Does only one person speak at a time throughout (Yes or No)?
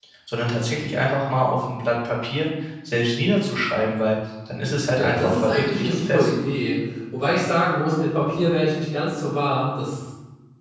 No